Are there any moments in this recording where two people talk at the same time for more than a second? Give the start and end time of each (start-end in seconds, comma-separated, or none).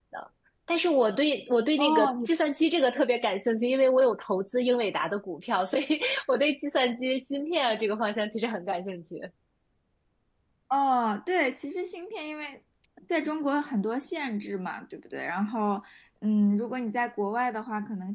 none